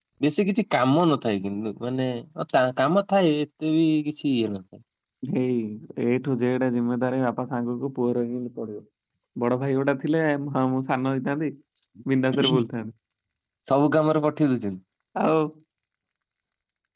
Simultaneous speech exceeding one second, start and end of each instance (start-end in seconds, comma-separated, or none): none